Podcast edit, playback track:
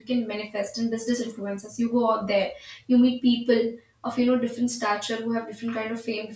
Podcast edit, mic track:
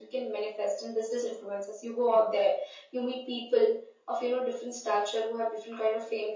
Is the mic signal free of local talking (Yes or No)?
Yes